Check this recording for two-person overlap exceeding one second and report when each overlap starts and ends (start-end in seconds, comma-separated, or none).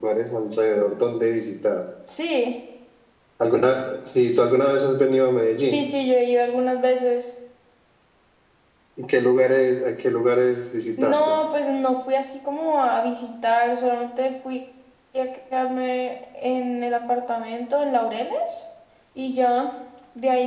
none